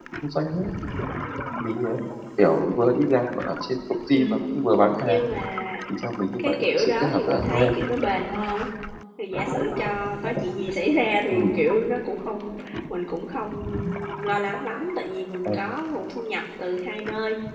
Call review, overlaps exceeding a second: present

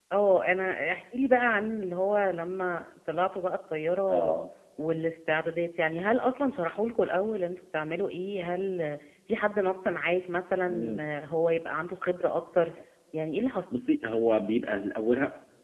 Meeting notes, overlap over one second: none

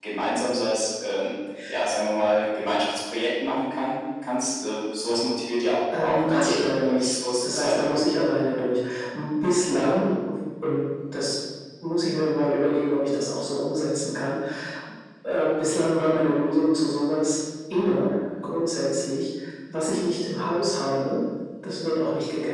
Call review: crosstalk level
present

